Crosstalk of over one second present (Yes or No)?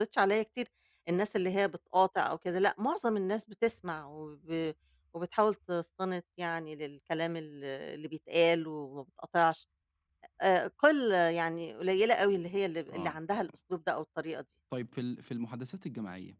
No